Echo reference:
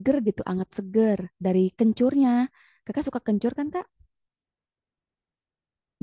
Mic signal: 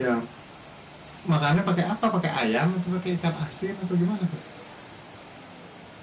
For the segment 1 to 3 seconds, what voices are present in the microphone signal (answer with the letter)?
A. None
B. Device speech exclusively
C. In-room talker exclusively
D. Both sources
C